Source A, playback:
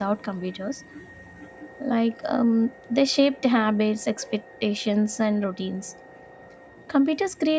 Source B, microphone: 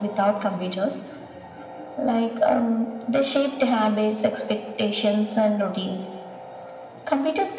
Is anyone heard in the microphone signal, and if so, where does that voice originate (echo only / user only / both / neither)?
echo only